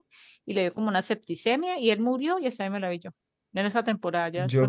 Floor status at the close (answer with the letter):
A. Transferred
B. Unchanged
A